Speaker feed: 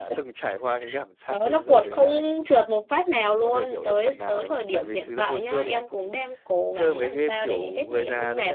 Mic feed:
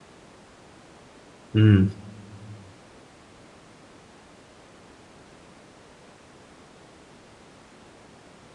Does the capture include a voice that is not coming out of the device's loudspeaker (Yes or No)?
Yes